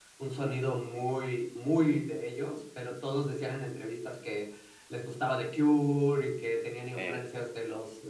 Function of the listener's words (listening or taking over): listening